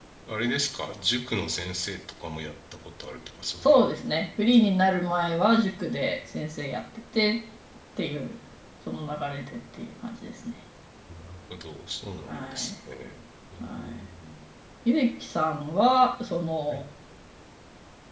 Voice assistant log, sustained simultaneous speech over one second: none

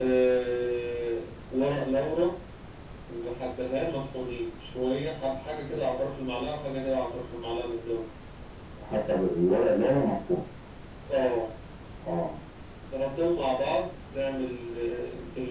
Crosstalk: none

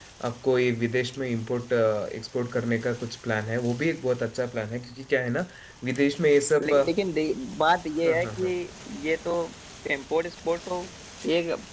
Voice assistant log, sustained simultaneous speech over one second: none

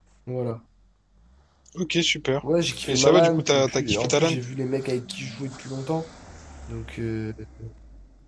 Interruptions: present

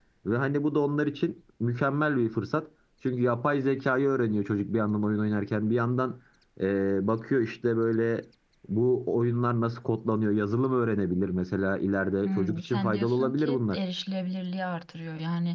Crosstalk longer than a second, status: present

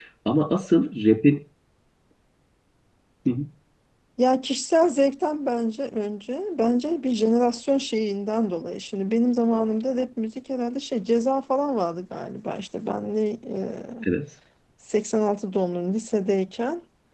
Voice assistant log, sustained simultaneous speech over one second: none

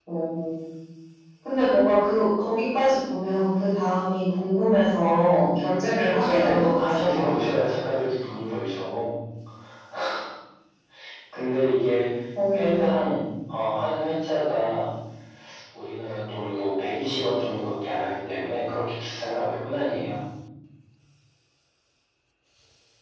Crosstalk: present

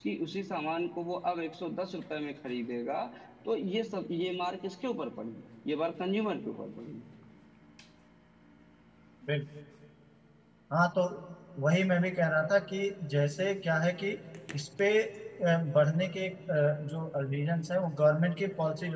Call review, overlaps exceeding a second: none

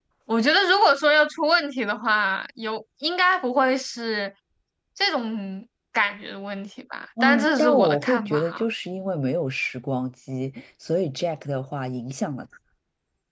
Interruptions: present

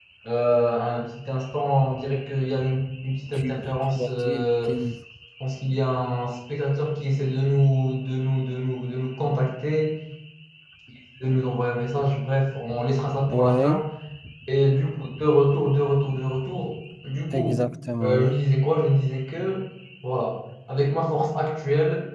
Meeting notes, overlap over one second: present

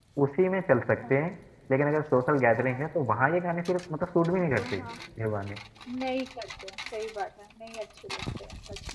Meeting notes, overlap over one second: none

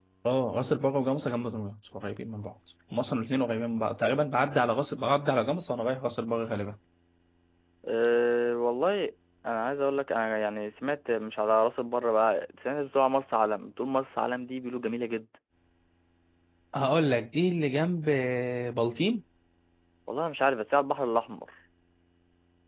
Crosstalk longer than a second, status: none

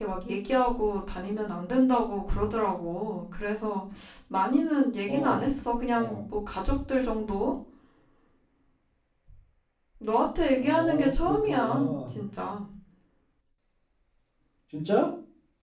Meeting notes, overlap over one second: present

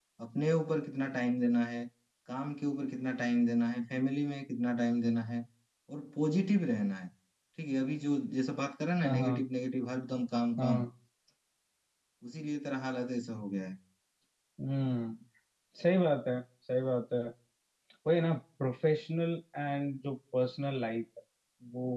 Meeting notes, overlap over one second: none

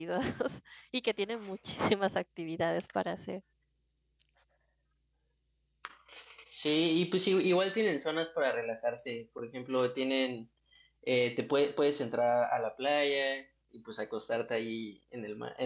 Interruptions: none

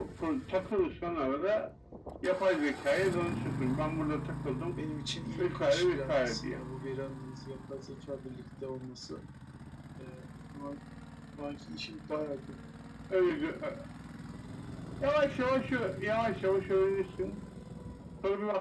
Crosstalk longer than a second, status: present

